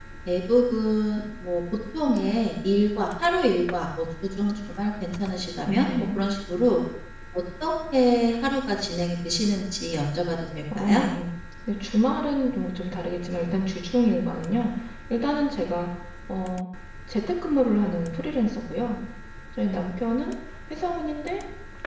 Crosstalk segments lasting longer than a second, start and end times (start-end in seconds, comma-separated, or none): none